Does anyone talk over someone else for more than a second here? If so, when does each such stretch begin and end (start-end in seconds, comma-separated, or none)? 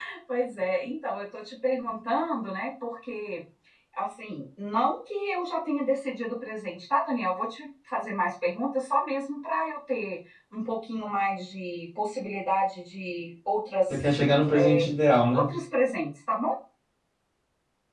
none